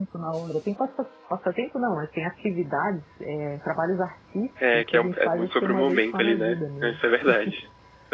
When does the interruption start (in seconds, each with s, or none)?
4.6 s